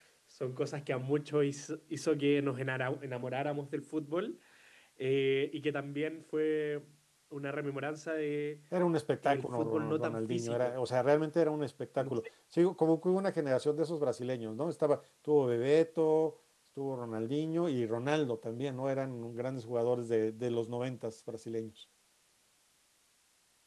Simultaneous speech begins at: 9.2 s

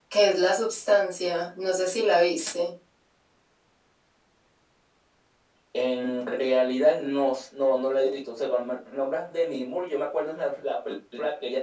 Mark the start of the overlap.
none

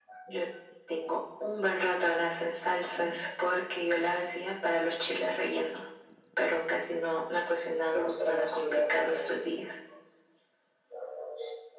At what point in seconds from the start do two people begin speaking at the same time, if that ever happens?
7.9 s

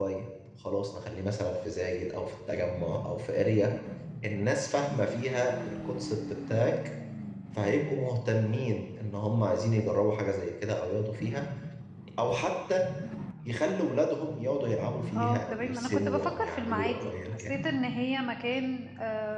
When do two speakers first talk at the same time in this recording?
15.1 s

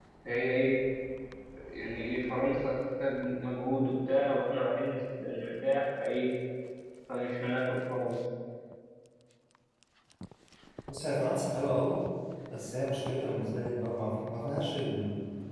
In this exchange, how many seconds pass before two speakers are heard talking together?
none

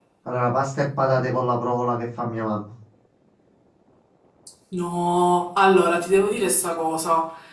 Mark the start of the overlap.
none

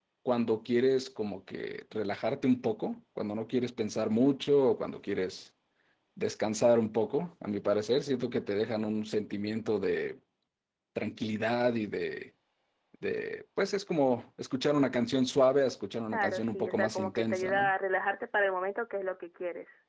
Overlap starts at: 16.1 s

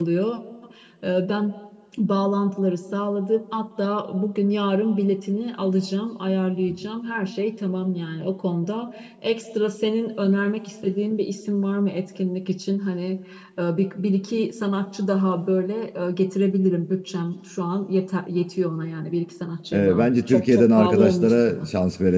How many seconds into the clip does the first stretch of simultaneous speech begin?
19.7 s

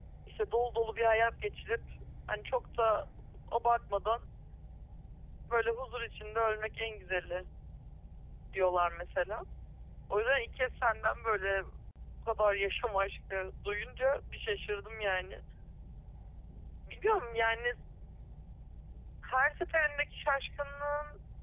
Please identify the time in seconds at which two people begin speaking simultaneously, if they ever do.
none

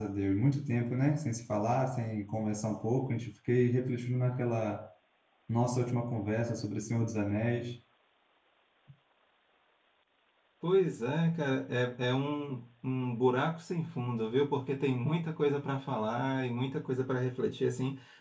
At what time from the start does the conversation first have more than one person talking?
none

